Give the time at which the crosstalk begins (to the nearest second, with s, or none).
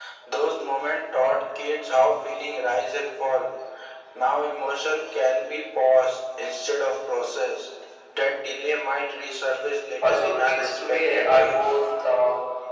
10 s